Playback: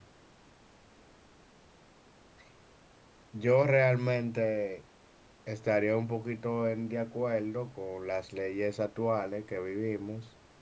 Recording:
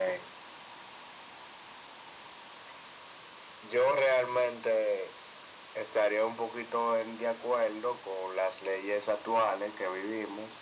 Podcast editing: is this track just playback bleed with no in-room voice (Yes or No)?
Yes